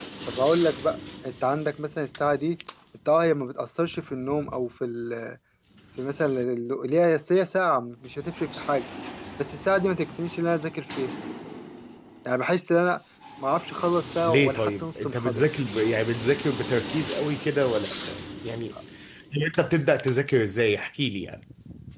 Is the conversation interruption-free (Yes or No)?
No